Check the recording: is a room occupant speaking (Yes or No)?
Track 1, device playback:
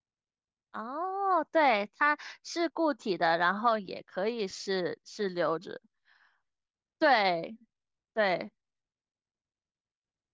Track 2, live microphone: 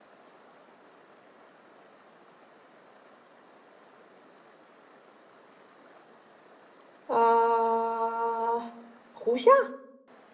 Yes